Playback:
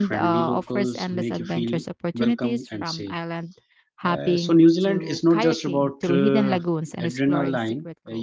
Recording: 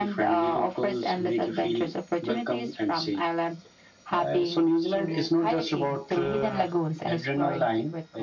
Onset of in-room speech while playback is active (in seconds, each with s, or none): none